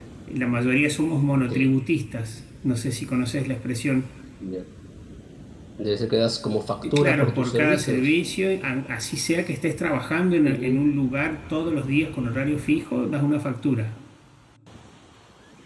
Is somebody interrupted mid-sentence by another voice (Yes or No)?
Yes